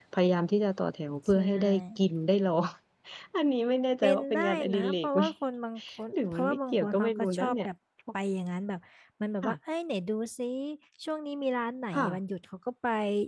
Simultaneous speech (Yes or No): Yes